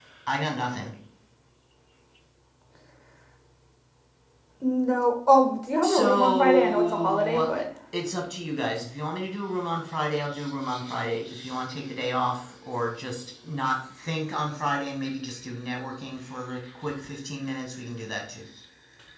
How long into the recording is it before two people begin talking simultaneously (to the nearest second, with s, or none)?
6 s